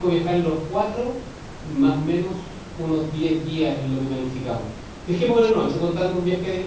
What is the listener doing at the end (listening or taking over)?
listening